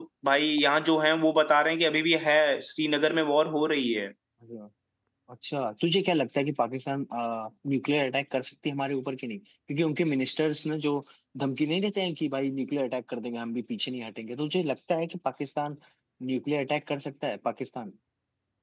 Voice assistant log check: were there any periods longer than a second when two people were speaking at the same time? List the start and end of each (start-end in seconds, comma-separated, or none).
none